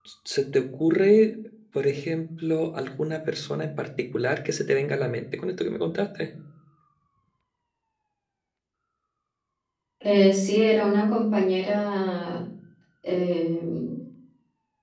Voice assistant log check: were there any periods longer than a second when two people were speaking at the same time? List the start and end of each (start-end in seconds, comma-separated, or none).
none